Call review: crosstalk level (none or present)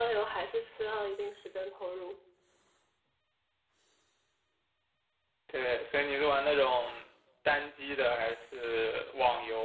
none